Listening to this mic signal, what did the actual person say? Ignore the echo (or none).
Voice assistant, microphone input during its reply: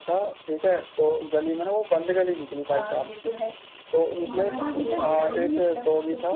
तुम्हारे साथ भी हुआ होगा